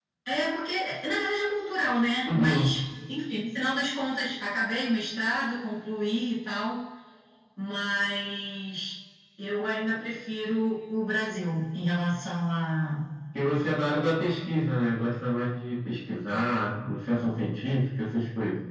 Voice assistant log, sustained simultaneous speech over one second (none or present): none